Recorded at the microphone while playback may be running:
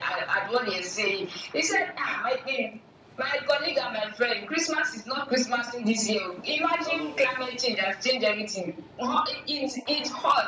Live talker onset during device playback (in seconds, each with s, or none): 6.8 s